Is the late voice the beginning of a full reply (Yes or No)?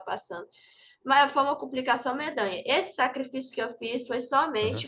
No